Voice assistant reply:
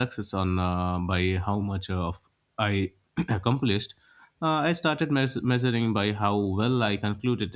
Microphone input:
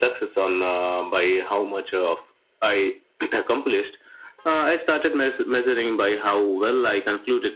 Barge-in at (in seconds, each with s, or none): none